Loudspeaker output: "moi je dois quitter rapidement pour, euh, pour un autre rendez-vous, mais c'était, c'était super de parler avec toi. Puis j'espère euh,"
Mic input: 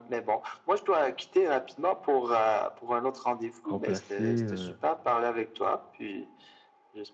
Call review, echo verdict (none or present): present